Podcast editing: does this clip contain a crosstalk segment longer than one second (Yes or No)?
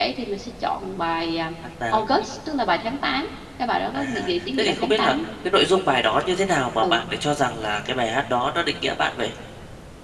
Yes